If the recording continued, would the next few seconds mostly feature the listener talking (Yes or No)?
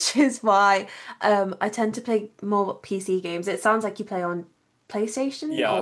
Yes